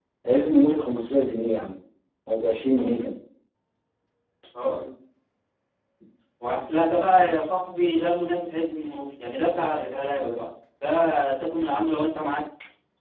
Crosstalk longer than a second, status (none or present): none